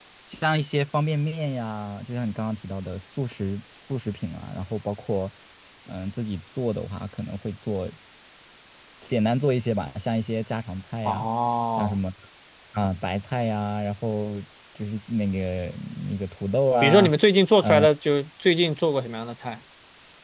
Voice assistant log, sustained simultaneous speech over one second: none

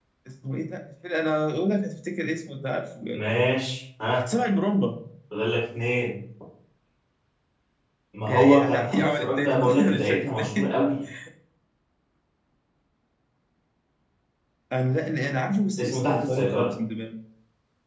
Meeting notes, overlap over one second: present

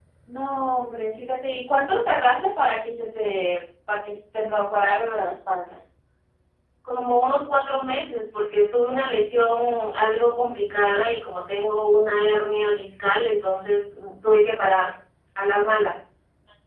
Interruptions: none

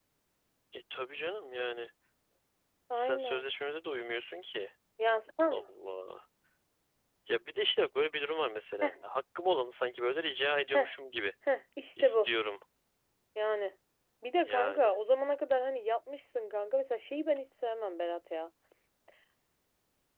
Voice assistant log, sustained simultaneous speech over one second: none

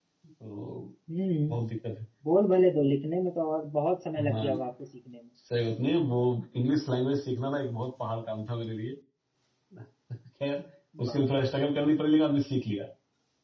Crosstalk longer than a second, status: none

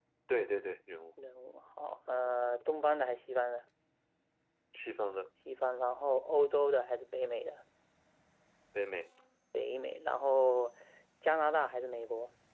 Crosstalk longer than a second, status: none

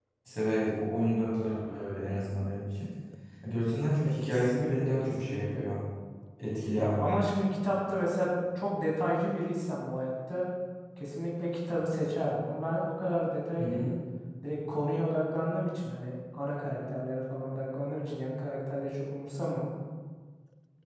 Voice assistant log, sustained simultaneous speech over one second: present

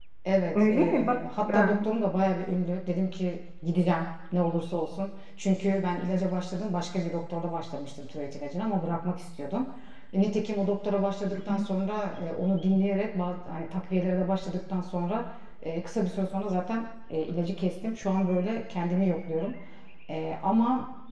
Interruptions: present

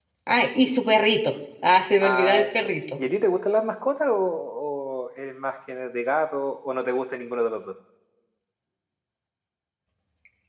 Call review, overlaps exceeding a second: none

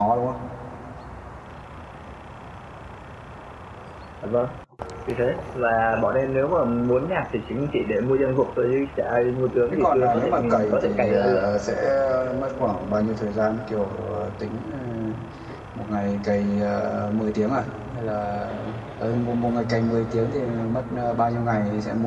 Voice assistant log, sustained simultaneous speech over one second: present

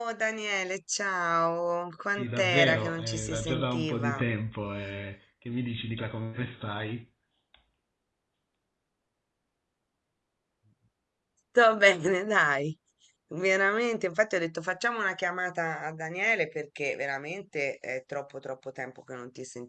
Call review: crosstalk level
present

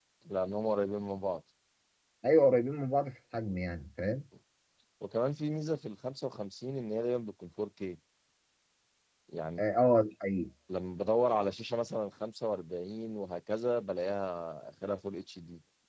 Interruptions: none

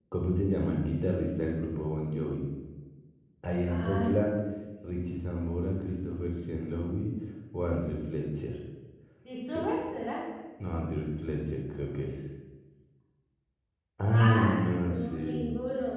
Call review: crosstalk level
present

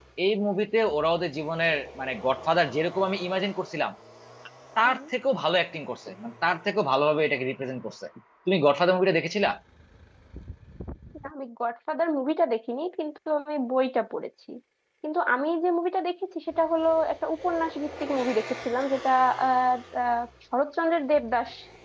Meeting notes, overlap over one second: none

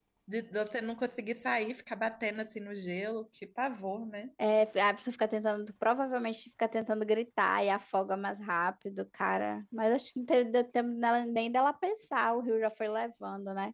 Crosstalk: none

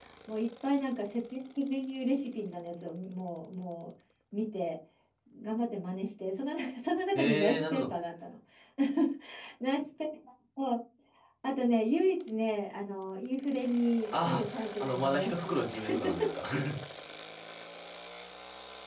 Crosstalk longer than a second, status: present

